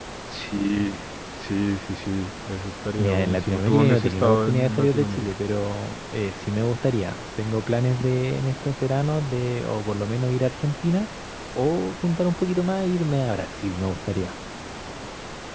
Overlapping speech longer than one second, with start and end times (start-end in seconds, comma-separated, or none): 3.0-5.3